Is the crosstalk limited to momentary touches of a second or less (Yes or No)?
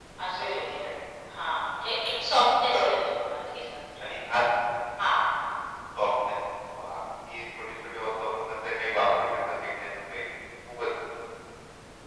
Yes